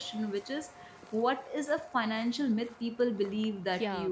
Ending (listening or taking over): taking over